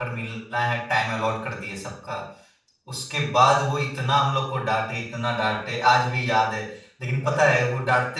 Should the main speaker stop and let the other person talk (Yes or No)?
No